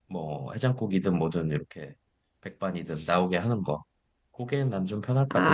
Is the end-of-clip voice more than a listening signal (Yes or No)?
Yes